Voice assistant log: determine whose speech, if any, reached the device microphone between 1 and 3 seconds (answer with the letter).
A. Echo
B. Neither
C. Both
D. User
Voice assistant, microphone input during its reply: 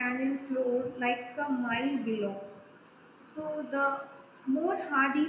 D